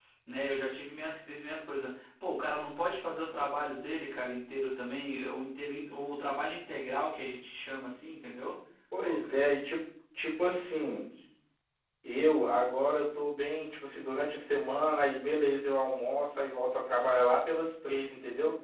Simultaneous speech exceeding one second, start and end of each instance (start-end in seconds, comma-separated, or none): none